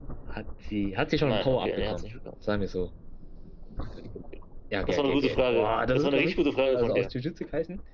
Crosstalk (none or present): present